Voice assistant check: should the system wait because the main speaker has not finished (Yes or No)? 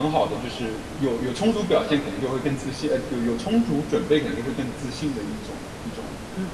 No